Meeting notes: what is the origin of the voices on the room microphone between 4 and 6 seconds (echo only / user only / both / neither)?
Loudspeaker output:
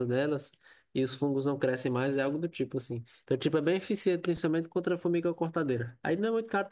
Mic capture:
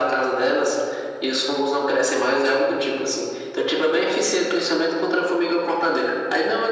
echo only